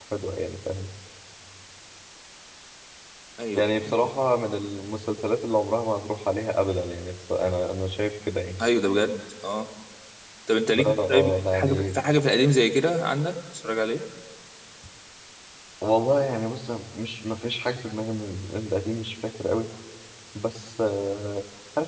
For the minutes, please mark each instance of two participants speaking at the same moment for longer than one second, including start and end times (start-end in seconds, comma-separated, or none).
10.8-12.0